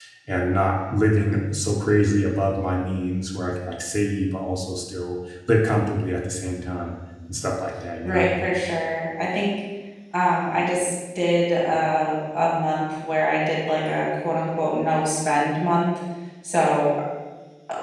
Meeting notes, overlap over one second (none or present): none